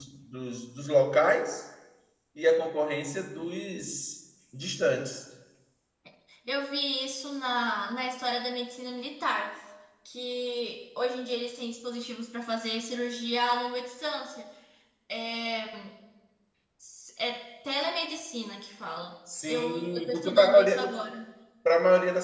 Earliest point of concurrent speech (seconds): 19 s

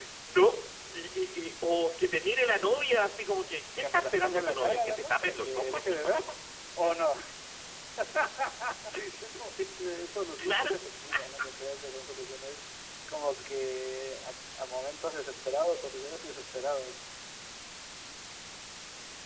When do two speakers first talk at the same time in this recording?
4 s

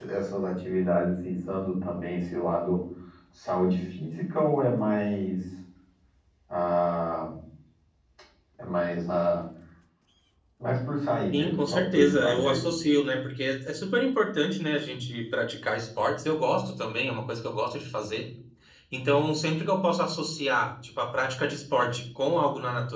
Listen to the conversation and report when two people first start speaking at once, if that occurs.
11 s

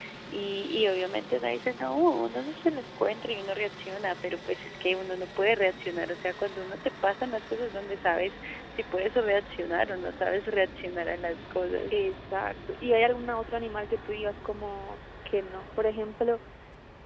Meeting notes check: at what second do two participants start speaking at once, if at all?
none

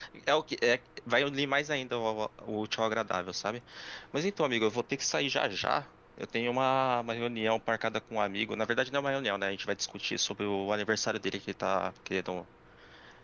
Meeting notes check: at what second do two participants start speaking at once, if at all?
none

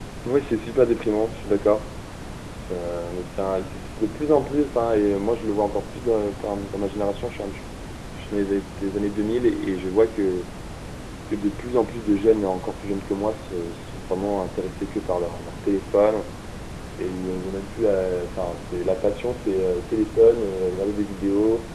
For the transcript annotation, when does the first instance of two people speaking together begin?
none

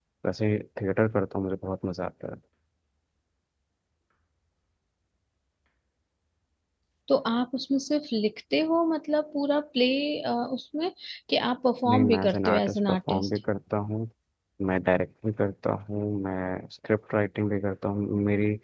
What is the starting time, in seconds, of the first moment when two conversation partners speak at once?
12 s

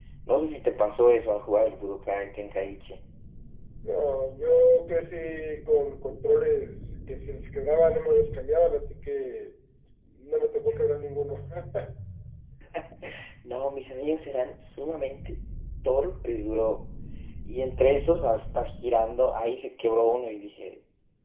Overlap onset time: none

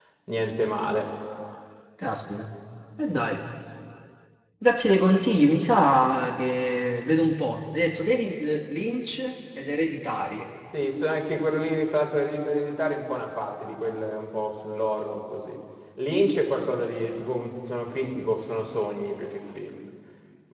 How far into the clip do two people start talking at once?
none

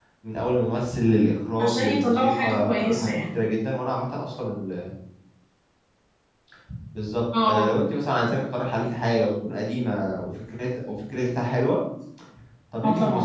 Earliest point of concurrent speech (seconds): 2 s

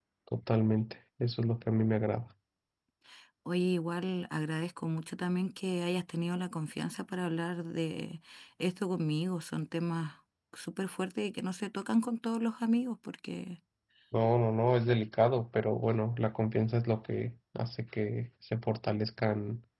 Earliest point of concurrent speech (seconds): none

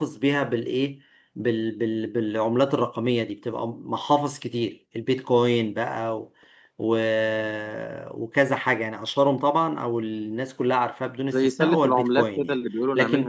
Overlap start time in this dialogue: 11 s

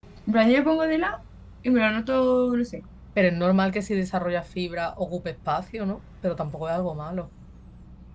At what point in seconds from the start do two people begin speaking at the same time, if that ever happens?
none

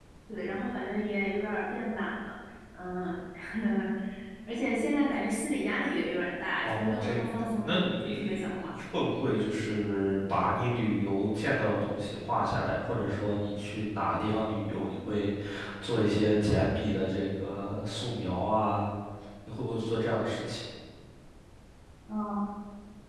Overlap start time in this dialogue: 7 s

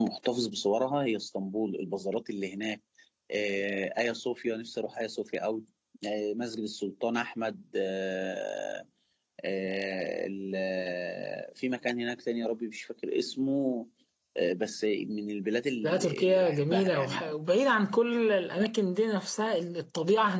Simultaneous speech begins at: 16 s

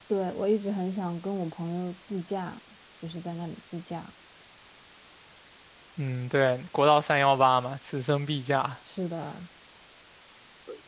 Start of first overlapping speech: none

